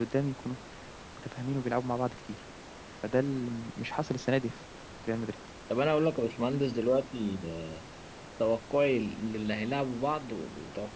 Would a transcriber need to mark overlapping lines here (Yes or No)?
No